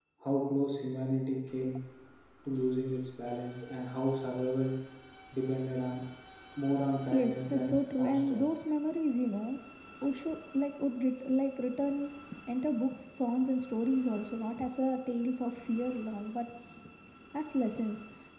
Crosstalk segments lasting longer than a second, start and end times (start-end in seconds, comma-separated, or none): 7.1-8.5